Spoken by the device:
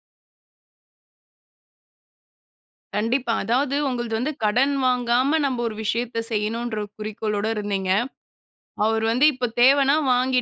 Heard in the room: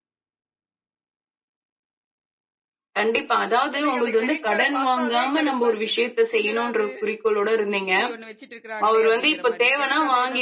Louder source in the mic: echo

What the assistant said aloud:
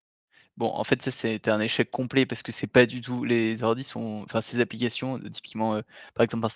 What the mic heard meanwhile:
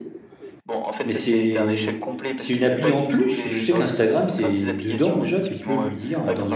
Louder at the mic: user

